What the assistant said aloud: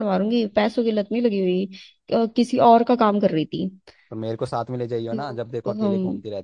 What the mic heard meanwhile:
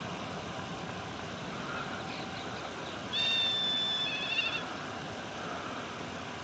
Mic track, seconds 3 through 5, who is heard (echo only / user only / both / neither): neither